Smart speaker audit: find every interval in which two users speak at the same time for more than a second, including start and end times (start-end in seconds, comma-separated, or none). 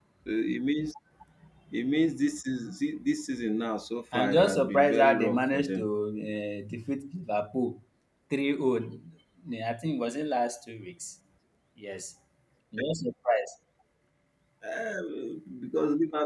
4.1-5.9